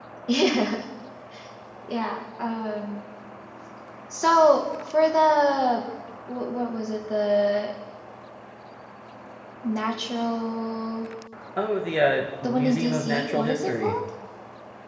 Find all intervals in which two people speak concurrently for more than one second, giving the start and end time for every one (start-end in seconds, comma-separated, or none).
12.4-13.9